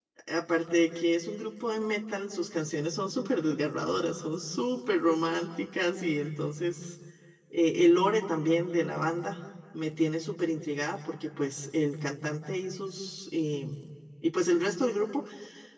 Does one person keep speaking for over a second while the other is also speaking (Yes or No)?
No